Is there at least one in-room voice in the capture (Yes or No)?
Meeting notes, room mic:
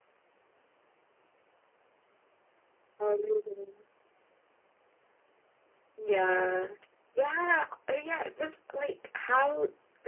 No